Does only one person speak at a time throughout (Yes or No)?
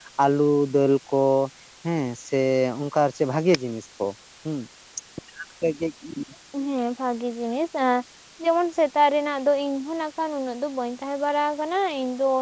Yes